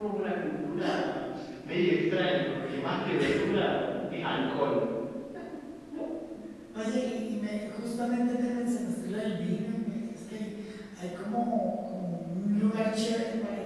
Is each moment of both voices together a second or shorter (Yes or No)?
Yes